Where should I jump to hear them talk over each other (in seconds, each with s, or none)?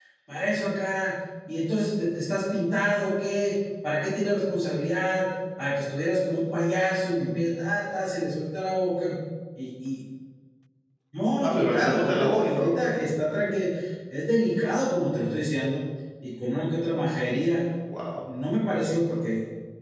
11.4 s